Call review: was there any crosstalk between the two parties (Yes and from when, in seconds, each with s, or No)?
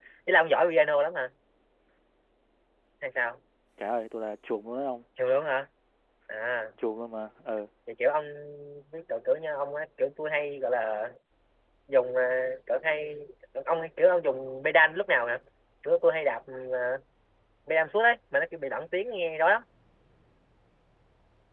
No